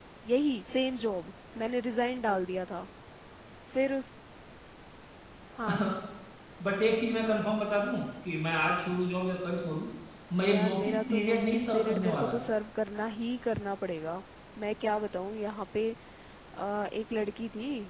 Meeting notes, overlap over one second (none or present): present